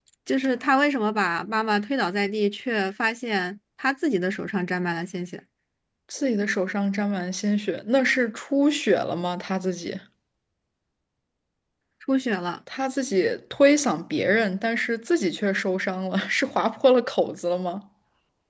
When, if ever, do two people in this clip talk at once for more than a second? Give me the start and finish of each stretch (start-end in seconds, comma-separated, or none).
none